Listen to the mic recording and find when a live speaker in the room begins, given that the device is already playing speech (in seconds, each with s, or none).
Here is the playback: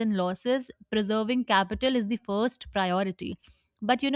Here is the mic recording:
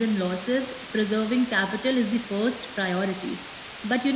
none